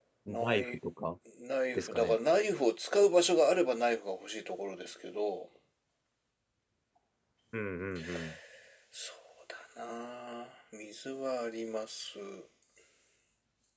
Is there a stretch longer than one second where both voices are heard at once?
No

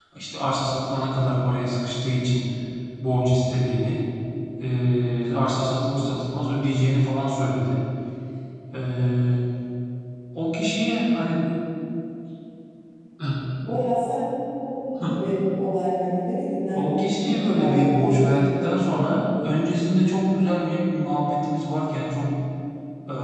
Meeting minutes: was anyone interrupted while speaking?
Yes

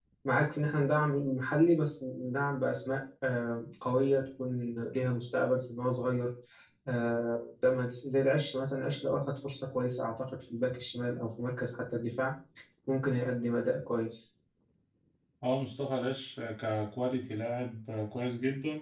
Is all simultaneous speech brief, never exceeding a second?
Yes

